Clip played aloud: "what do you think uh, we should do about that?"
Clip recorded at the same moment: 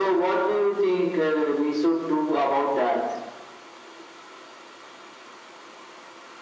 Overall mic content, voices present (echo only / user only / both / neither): echo only